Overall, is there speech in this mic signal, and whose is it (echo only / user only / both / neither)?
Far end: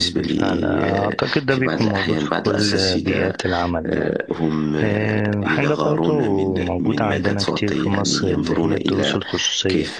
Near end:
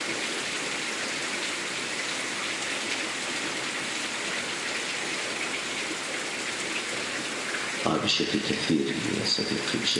user only